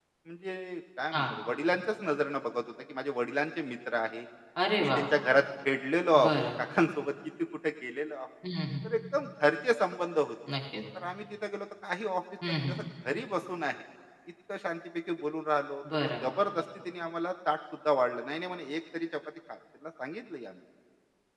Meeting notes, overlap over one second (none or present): none